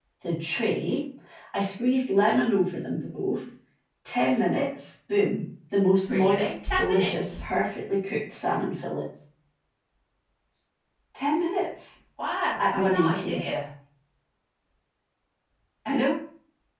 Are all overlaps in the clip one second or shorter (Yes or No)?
No